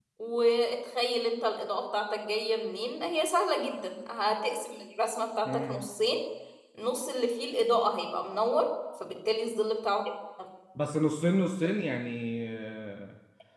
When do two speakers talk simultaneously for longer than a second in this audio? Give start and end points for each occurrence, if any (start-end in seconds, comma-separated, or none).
none